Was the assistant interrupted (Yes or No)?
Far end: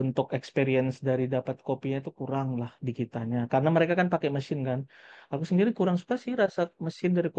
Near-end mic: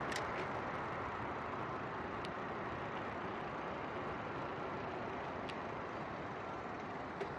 No